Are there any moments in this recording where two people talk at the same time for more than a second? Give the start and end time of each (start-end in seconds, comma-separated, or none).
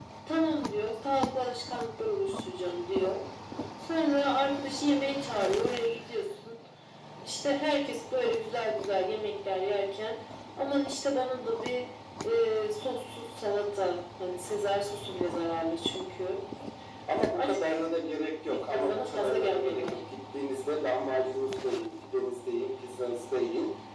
18.5-19.8